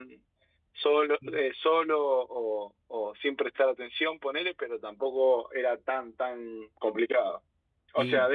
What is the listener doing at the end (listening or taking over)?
listening